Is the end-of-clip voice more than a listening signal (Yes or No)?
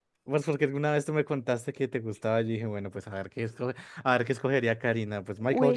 Yes